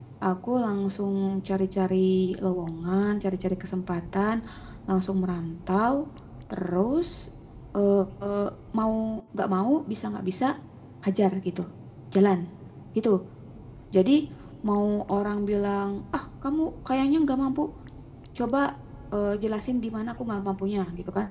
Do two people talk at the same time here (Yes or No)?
No